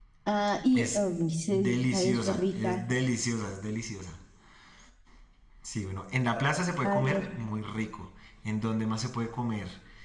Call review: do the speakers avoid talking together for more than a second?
No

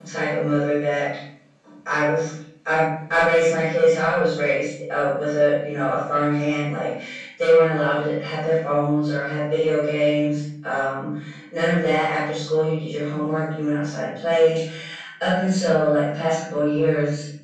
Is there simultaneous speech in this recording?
No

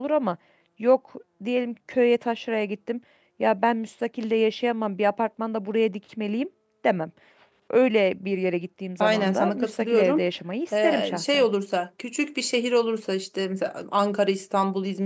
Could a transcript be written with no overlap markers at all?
No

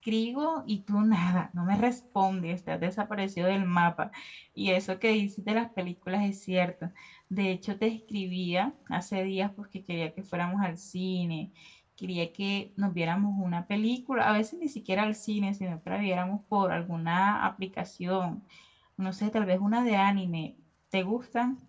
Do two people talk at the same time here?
No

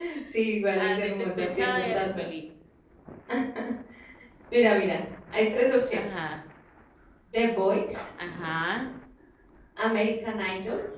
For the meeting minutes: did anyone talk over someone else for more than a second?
Yes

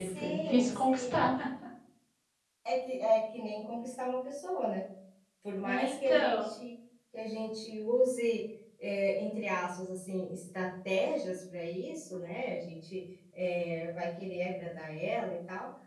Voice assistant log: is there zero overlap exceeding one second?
No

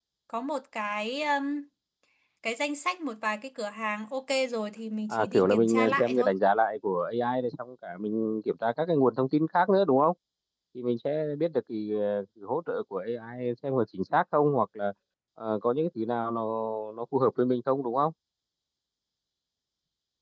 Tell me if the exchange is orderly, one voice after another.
No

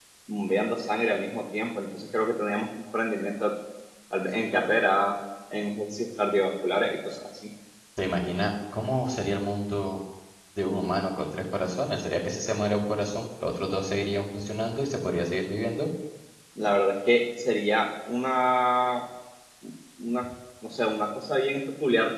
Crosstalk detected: No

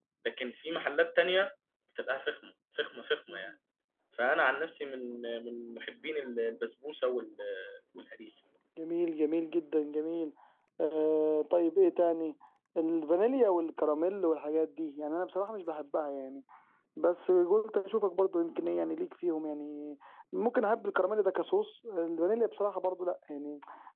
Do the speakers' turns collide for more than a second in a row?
No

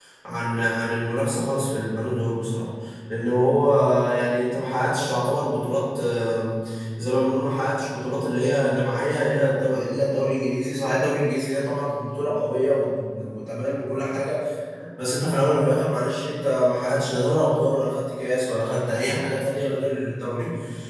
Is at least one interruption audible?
No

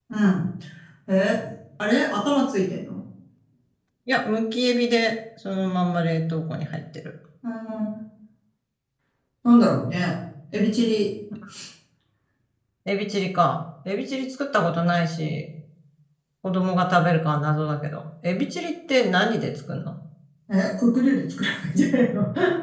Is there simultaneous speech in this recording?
No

